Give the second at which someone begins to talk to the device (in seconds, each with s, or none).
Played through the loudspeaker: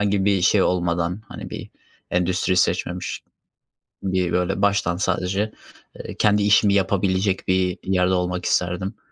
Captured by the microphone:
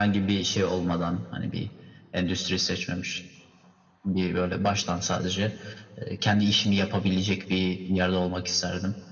none